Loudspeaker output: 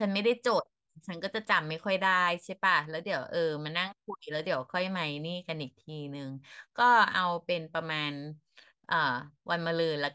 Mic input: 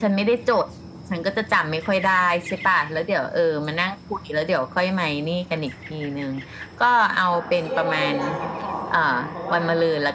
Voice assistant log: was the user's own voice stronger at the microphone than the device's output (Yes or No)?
No